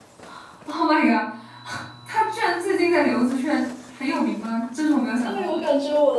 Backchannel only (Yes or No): No